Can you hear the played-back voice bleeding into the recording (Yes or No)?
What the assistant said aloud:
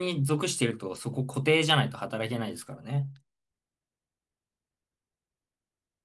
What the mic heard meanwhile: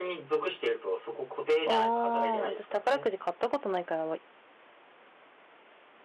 Yes